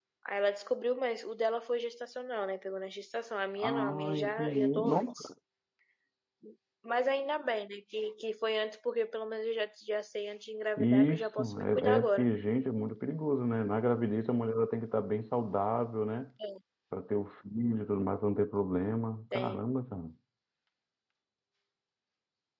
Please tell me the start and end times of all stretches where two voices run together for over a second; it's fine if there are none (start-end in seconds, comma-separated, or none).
3.6-5.3, 10.8-12.3